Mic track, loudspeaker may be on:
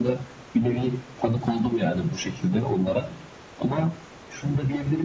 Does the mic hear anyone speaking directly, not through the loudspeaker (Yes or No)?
No